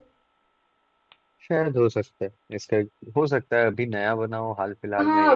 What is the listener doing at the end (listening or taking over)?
taking over